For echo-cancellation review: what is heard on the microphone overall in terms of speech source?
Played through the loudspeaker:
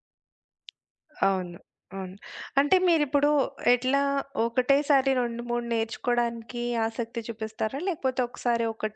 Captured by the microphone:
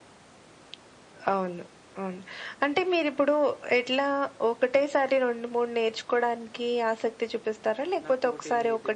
both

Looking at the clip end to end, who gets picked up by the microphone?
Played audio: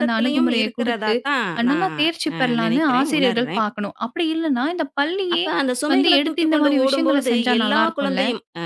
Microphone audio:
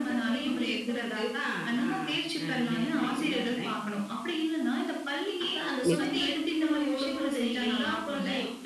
both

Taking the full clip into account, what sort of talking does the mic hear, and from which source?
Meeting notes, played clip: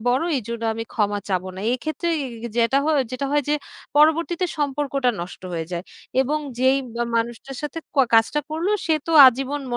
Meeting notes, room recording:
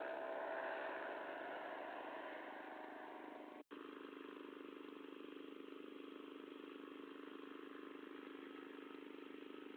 neither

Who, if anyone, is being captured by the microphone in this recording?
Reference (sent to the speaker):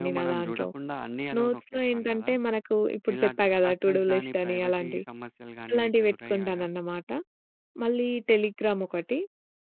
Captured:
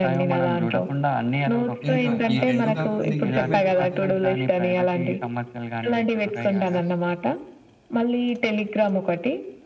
both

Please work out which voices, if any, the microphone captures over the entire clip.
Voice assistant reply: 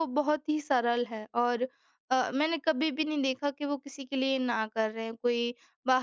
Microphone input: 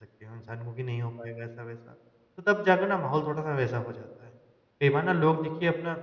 user only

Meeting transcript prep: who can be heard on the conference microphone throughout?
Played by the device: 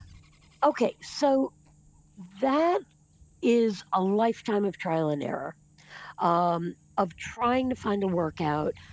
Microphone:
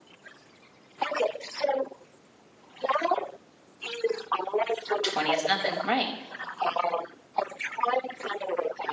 both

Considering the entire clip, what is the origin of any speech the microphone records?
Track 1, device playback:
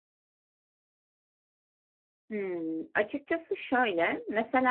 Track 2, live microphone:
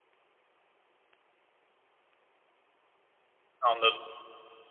user only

